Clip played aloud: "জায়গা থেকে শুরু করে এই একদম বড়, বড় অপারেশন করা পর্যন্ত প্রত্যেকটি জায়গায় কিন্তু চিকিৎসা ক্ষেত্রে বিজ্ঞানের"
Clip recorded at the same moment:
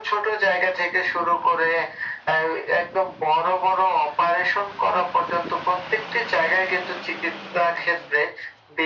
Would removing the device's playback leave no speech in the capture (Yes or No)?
Yes